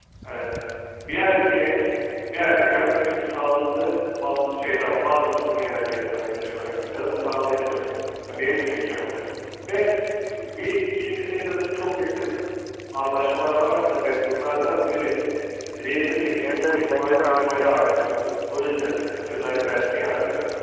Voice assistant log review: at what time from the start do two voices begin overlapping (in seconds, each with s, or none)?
16.4 s